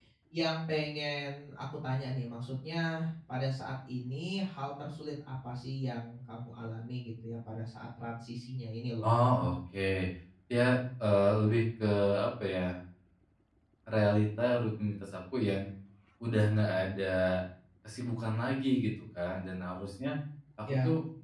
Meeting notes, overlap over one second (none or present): none